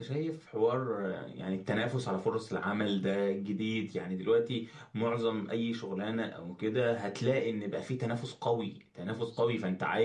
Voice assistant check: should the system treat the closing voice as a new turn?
No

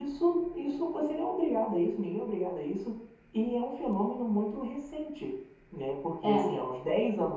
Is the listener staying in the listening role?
Yes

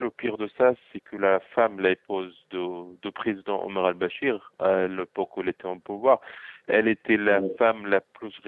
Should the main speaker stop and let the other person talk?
No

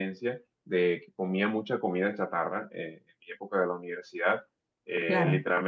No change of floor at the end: Yes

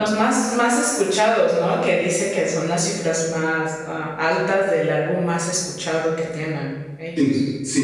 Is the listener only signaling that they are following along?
No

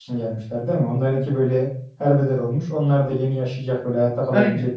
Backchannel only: No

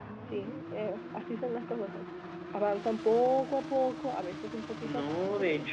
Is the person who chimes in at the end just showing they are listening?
No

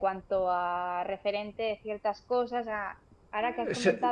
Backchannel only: Yes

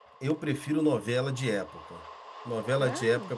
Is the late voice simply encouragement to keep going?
Yes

